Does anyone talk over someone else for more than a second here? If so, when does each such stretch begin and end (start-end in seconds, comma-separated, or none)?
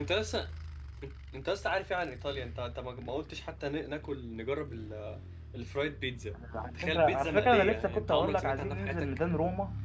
6.8-9.2